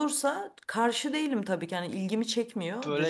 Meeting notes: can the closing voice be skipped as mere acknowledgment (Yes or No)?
No